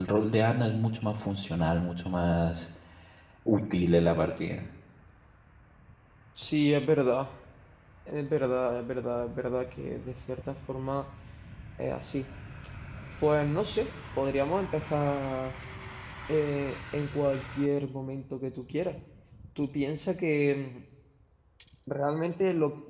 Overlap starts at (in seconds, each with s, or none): none